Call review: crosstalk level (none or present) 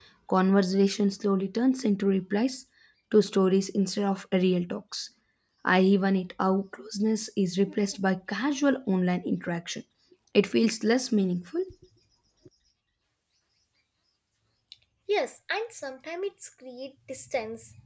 none